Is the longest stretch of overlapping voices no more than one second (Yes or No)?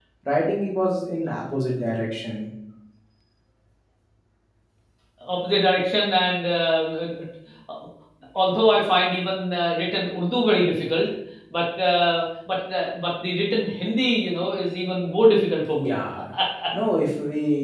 Yes